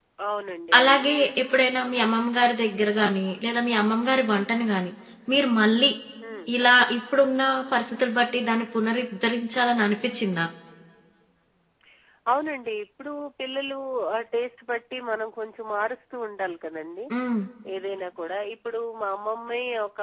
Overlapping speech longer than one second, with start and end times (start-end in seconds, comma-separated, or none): none